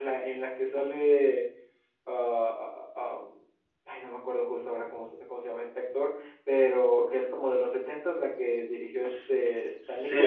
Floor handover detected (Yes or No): Yes